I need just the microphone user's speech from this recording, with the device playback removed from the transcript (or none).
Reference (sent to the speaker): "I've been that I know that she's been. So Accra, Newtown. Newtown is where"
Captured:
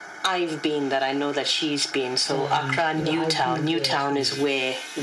And, you know, I've been there to